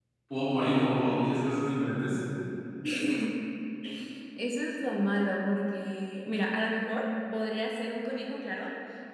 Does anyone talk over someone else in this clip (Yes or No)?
No